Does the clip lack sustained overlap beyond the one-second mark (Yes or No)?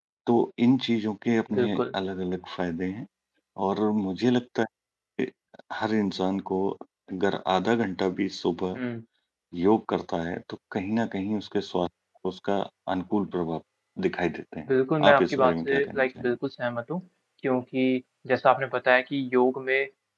No